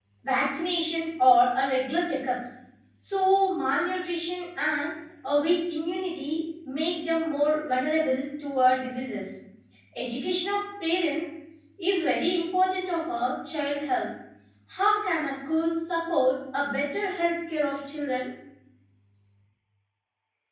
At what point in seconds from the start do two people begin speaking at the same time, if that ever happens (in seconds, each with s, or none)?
none